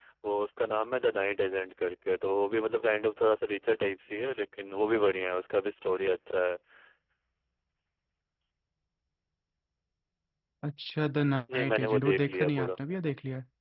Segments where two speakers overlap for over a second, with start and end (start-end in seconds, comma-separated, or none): 11.5-12.8